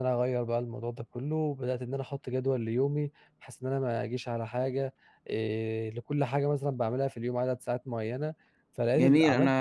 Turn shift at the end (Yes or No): Yes